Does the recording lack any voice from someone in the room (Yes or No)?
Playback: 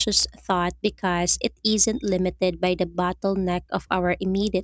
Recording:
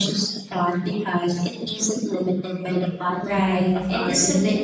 No